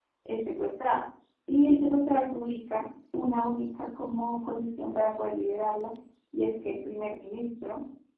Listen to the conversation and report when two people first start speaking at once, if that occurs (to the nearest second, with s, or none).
none